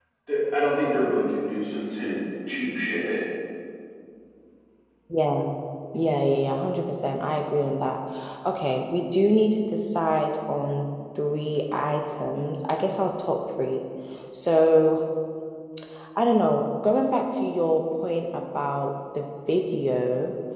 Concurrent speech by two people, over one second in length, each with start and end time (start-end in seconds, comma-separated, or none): none